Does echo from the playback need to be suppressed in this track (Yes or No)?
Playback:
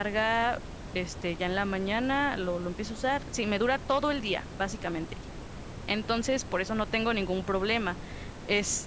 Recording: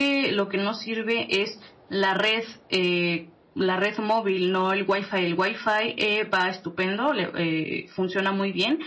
No